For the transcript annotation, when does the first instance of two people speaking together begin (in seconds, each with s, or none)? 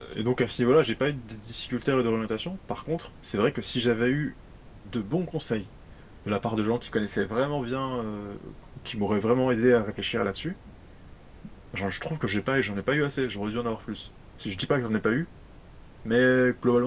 none